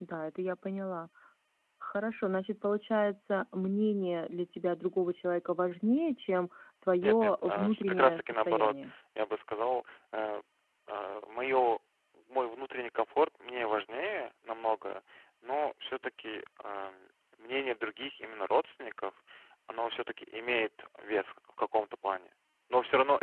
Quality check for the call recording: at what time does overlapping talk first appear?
7.0 s

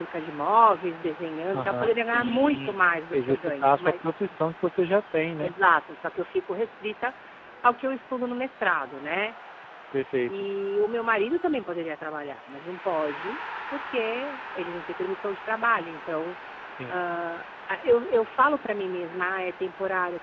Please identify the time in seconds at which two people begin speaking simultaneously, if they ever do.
1.5 s

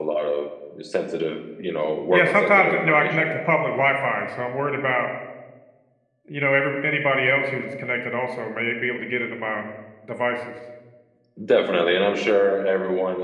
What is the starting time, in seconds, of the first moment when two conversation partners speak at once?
2.1 s

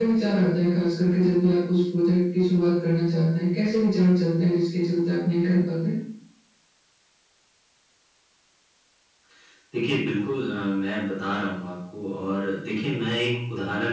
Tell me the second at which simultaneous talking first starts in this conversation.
none

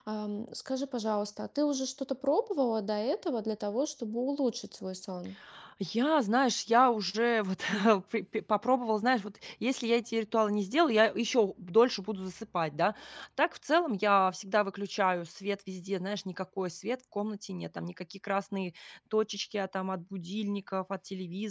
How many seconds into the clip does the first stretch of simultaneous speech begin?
none

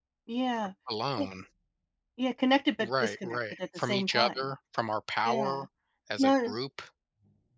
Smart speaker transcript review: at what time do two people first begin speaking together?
2.8 s

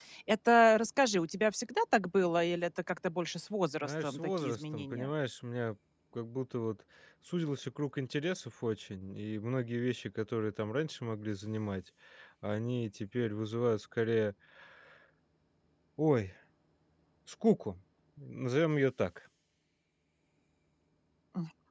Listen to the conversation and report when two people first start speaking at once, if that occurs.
3.8 s

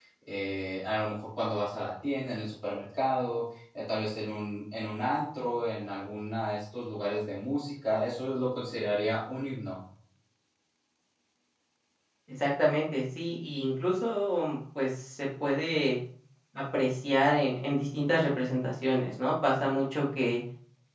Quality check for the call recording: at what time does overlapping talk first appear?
none

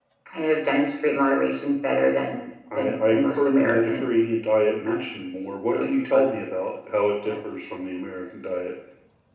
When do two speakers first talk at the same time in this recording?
2.7 s

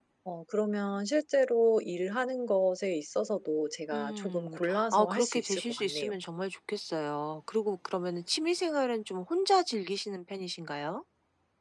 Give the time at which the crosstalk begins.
3.9 s

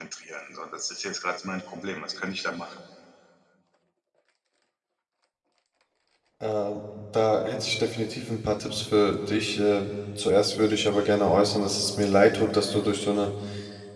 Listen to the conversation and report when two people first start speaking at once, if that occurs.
none

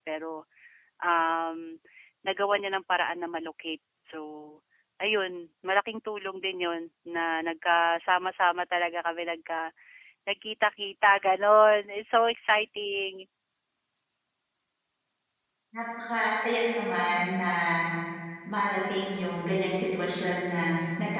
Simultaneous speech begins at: none

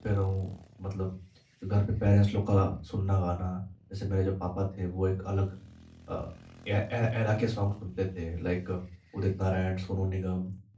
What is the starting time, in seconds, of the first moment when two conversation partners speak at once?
none

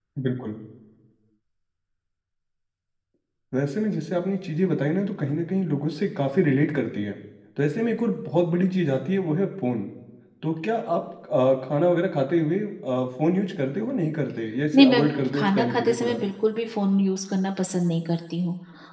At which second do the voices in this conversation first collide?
14.7 s

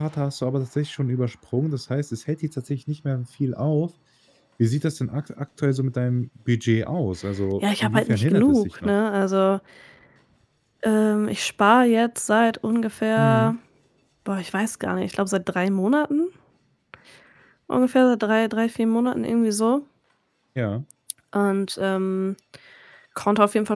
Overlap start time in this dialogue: 7.6 s

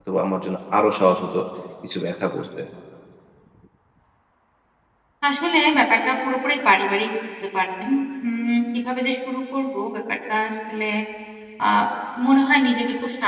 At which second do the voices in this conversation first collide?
none

